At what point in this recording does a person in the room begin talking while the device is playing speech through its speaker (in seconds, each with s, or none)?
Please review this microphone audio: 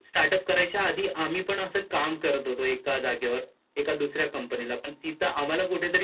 none